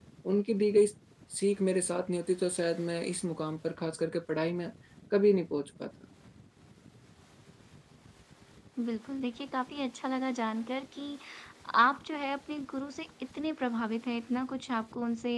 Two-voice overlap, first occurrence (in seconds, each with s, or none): none